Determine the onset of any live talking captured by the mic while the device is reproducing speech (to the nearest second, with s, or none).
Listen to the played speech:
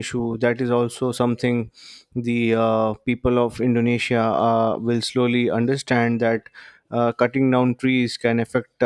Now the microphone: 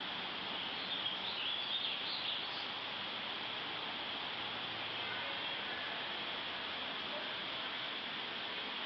none